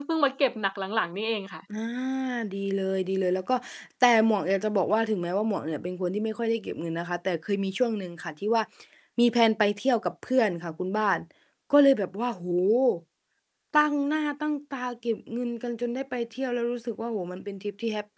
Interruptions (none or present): none